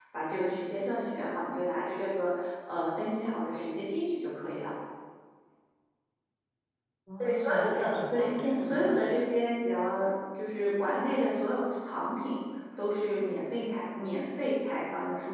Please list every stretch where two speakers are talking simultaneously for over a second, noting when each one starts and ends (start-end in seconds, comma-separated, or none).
7.2-8.8